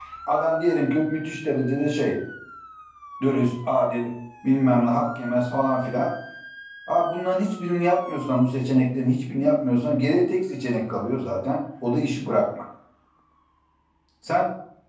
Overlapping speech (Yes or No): No